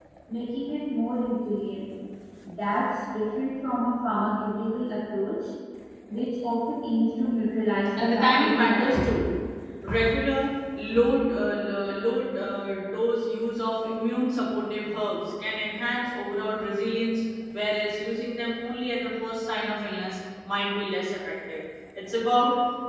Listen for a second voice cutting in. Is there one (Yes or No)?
Yes